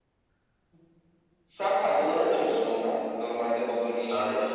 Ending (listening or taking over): taking over